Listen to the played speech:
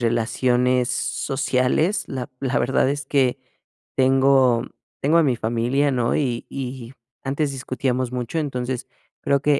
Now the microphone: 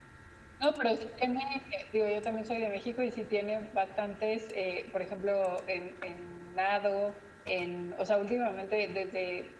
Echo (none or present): none